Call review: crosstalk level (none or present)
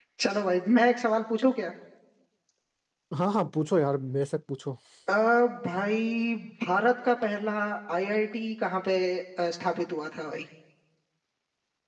none